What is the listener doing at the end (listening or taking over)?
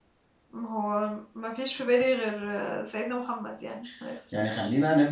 taking over